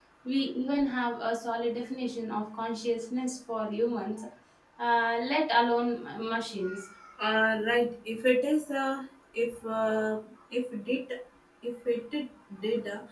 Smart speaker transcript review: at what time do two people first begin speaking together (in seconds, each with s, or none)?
none